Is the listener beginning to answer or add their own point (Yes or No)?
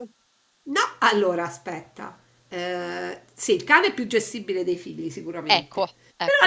No